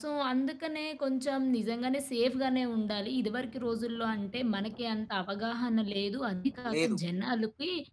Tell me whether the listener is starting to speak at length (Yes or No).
No